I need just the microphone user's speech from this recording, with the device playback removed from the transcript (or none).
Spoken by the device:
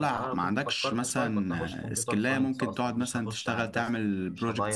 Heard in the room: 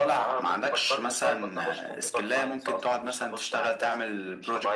none